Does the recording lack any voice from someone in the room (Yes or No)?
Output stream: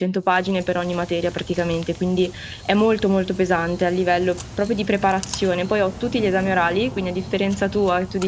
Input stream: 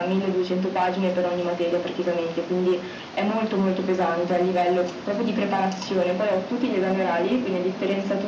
Yes